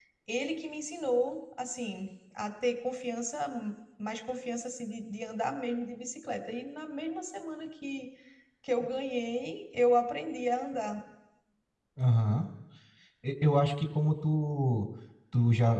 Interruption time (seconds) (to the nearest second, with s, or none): none